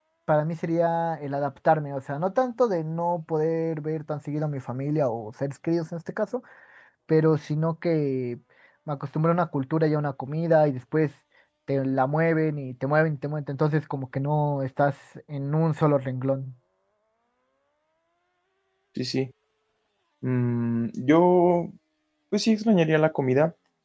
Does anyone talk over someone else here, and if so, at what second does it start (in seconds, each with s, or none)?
none